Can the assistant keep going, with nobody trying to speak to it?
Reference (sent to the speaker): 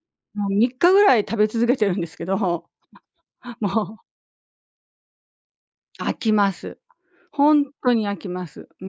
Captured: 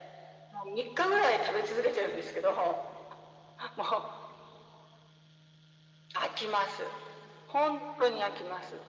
Yes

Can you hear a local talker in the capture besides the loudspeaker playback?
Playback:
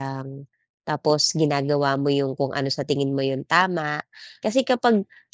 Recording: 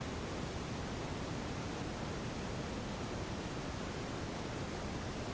No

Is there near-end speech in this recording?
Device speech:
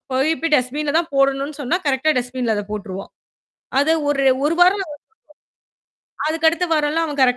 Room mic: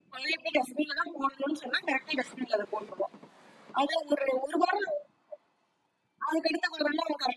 No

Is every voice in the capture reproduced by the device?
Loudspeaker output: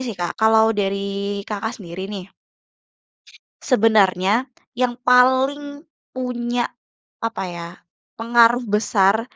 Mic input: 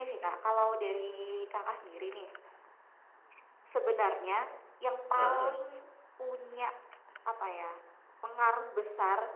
No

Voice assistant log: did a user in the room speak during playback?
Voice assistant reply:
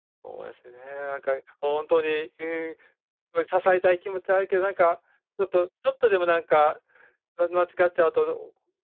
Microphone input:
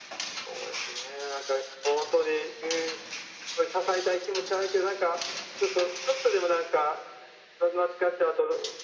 No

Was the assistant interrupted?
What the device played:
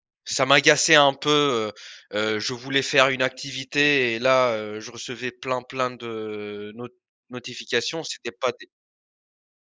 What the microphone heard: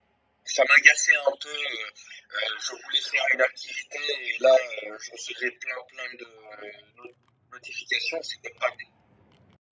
No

